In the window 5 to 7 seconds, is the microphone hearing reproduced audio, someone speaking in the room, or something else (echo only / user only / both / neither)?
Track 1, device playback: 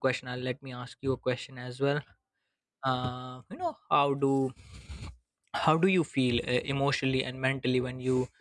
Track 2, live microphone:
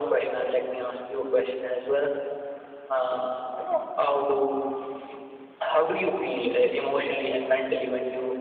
echo only